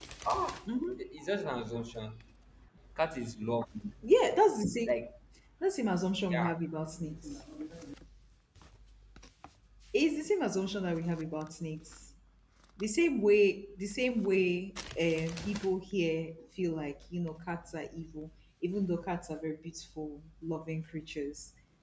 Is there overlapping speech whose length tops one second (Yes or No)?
No